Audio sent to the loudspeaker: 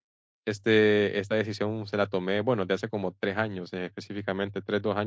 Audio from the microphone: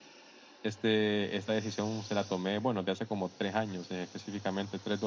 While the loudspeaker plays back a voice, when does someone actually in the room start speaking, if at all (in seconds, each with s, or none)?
none